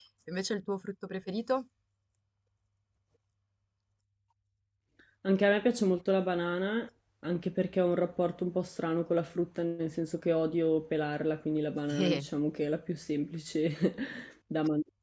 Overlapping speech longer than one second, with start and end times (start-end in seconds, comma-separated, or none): none